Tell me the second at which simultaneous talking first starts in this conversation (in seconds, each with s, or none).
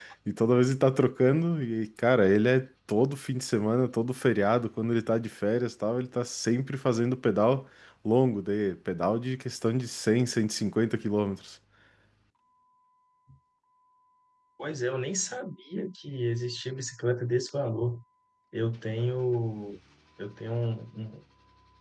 none